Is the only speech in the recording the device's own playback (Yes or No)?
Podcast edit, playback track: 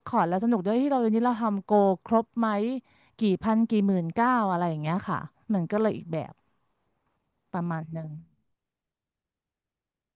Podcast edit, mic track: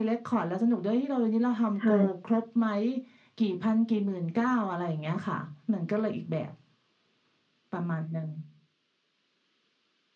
No